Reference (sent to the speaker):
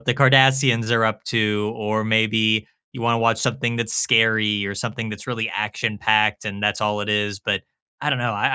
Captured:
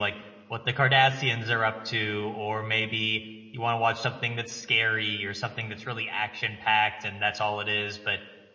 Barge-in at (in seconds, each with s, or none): none